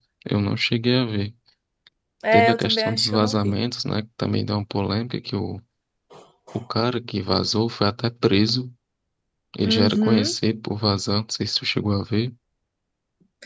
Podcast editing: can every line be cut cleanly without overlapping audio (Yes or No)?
No